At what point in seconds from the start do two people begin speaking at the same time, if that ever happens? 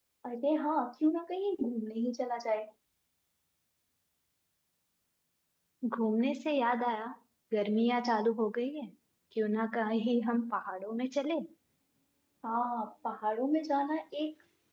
none

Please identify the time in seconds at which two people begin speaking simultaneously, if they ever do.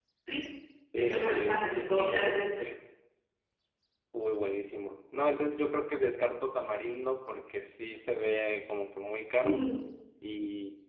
1 s

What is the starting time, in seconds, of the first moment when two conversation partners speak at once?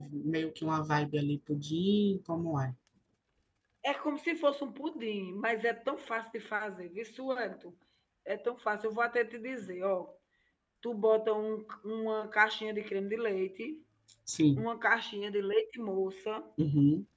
none

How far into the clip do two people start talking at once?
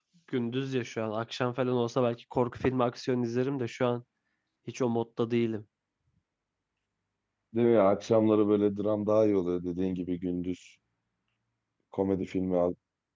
none

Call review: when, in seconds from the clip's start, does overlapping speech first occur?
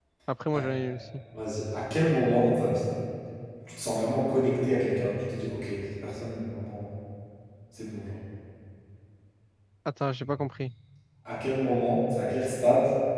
none

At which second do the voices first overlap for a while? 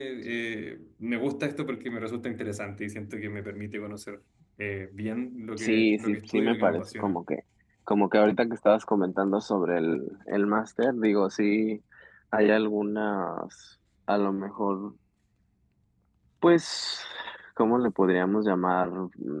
6 s

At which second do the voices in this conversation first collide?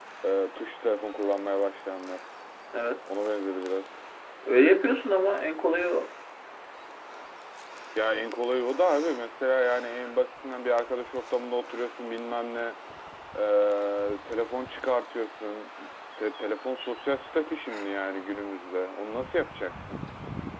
none

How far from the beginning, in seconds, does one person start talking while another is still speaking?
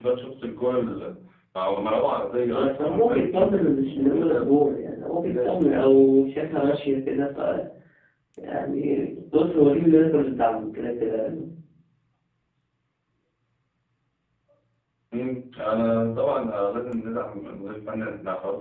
3 s

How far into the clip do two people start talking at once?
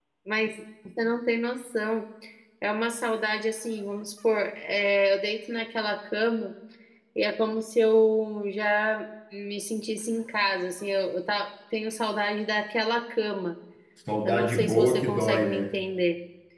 14 s

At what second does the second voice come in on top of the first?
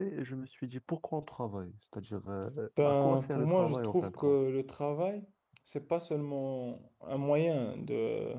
3 s

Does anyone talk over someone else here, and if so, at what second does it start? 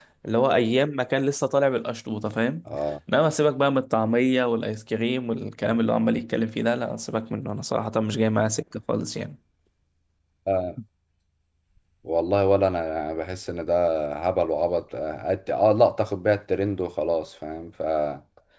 none

